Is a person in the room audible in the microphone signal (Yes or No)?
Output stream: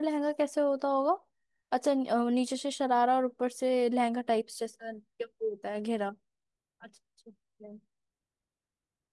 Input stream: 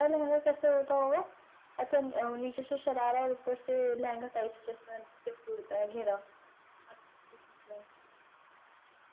No